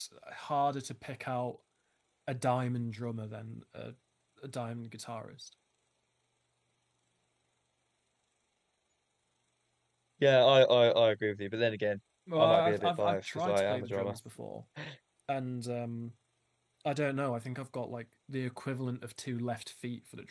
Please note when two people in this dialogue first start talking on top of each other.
12.4 s

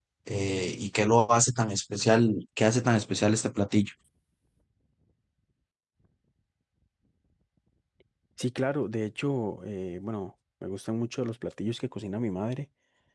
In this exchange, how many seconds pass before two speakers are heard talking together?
none

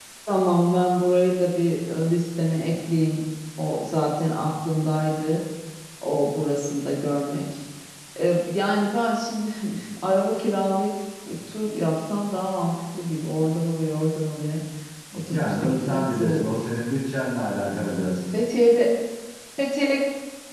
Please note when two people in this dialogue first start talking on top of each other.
15.3 s

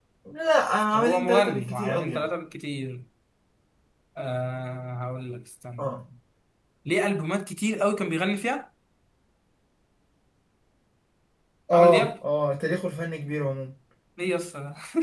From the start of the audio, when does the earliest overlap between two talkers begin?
0.9 s

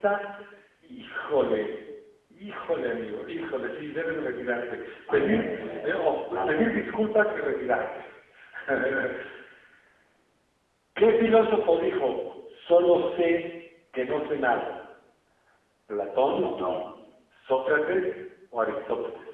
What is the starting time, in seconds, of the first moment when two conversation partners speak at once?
5.1 s

